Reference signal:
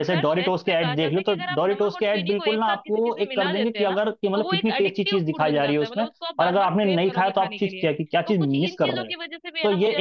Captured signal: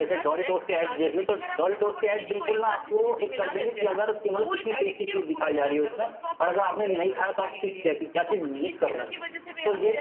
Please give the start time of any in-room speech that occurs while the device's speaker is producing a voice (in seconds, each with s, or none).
none